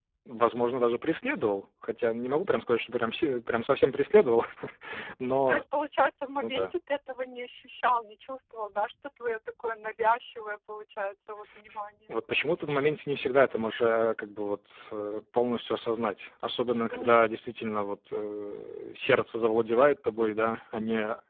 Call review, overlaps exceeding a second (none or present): none